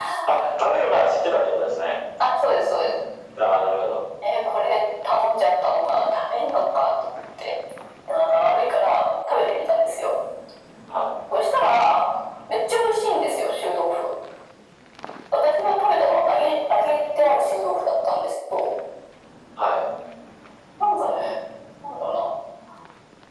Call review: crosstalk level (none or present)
none